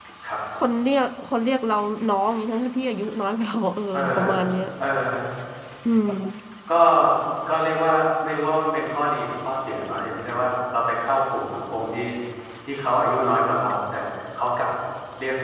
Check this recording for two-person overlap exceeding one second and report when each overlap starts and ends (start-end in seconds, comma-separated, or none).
none